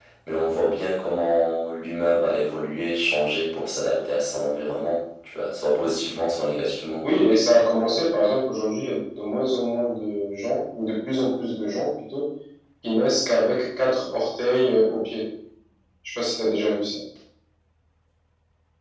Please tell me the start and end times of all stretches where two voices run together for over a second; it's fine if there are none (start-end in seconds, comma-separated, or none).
none